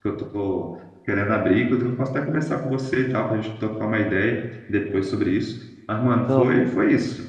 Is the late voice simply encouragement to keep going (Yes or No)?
Yes